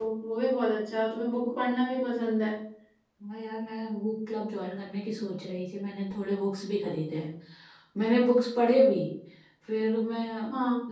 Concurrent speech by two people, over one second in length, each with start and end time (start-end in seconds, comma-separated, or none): none